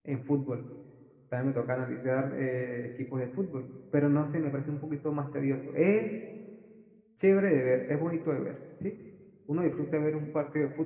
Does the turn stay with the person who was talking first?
Yes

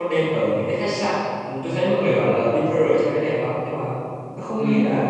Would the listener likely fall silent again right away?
Yes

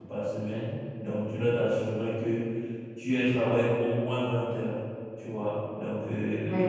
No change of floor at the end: Yes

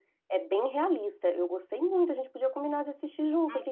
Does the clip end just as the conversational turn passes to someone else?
Yes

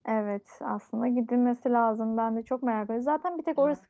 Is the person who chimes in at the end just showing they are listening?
Yes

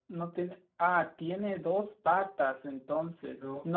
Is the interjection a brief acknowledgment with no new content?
Yes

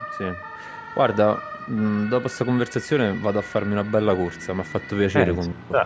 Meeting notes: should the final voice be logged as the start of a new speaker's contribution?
Yes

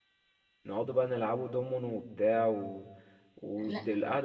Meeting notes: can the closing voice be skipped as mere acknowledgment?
Yes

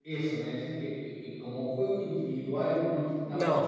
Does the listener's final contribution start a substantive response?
No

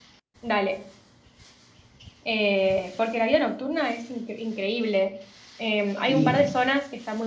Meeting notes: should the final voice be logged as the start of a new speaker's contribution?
No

